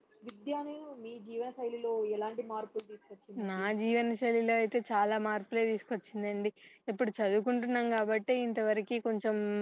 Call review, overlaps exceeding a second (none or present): none